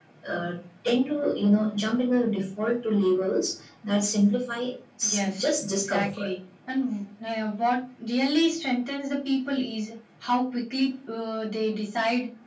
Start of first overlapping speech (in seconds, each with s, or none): 5.0 s